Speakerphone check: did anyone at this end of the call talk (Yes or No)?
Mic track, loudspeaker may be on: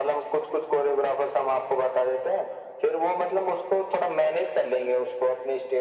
No